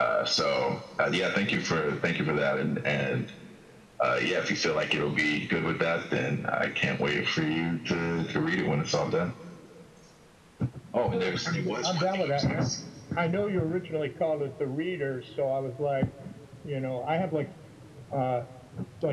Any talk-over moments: Yes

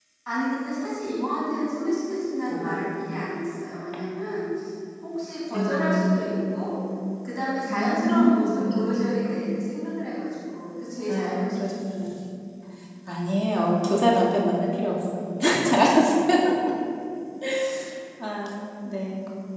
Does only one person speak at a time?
No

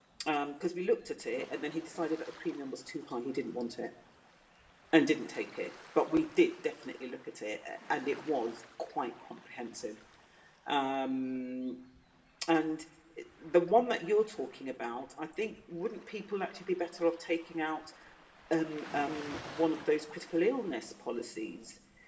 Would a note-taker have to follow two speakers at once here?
No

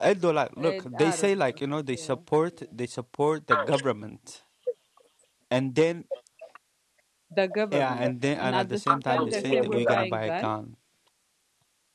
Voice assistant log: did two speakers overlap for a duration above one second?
Yes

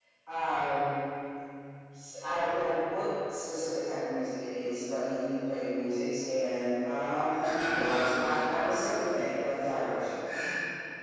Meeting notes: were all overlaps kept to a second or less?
No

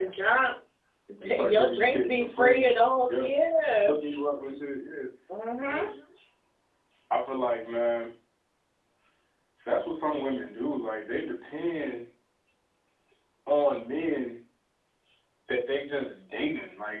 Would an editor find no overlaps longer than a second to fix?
No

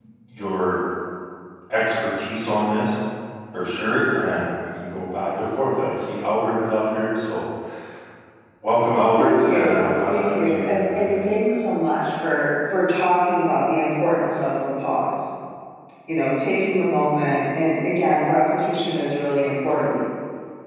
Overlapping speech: Yes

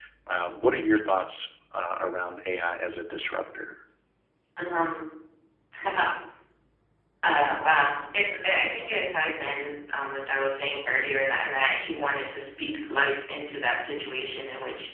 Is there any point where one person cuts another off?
No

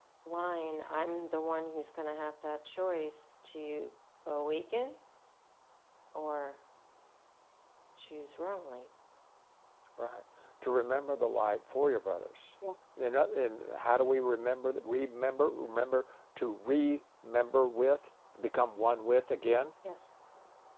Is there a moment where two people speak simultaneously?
No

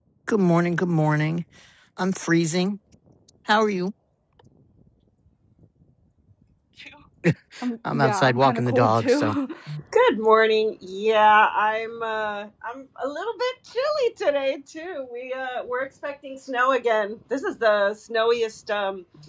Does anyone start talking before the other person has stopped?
Yes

